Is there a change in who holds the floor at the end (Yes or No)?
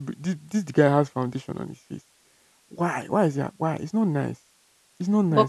Yes